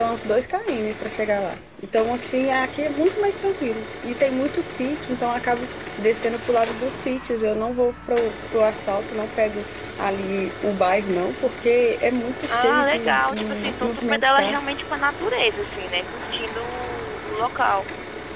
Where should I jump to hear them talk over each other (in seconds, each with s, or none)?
12.5 s